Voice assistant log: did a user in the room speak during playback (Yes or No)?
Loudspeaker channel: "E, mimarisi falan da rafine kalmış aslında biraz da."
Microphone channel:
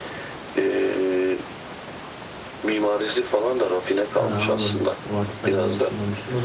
Yes